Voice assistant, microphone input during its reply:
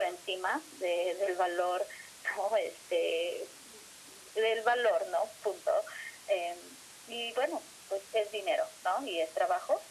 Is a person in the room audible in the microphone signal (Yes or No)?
No